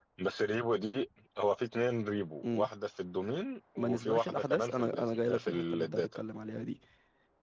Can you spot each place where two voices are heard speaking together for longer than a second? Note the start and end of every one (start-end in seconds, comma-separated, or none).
3.8-6.2